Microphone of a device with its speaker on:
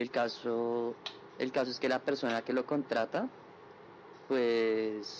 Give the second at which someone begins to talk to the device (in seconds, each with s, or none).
none